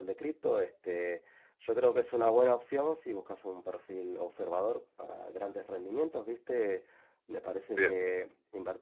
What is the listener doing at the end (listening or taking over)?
listening